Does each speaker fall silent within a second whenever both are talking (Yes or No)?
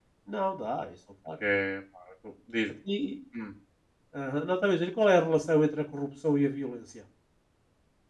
Yes